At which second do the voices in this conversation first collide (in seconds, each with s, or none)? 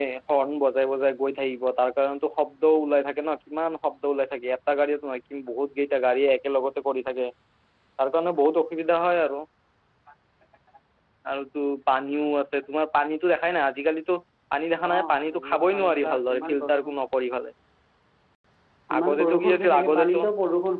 14.8 s